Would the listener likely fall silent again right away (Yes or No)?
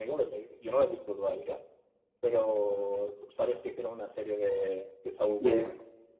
No